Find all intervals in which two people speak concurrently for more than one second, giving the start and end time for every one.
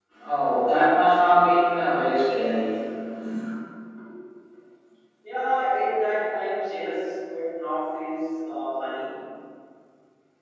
none

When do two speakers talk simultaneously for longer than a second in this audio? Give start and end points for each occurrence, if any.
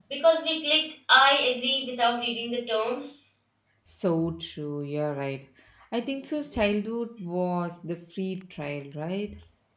none

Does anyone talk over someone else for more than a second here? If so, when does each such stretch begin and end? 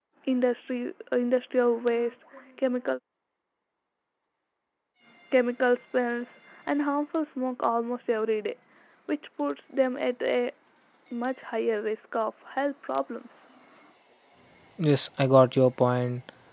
none

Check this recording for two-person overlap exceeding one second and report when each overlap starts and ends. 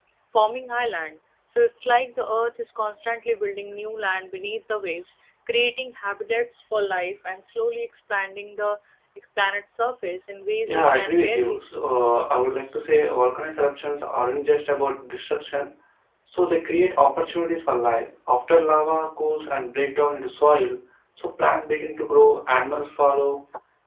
10.7-11.9

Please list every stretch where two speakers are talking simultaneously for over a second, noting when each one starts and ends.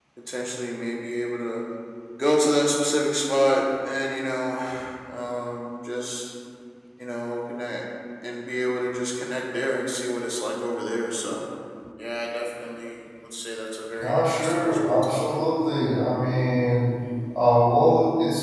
14.0-15.2

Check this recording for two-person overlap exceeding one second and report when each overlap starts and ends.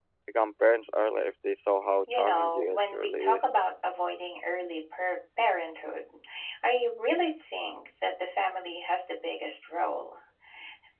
2.1-3.4

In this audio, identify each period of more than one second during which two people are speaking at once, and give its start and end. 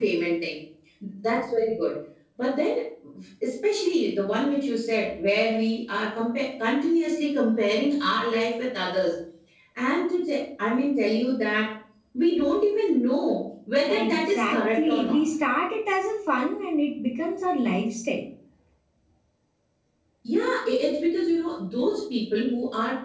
13.9-15.2

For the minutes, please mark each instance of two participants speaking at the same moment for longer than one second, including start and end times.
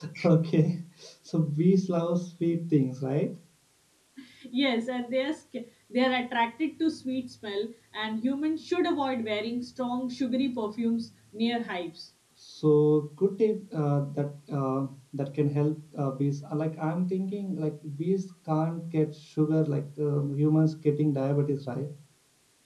none

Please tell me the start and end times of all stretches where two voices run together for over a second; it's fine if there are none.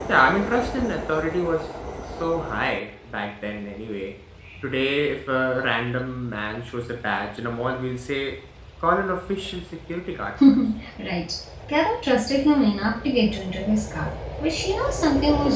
none

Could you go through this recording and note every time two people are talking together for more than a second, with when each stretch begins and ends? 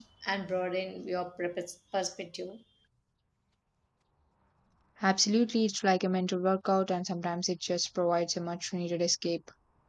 none

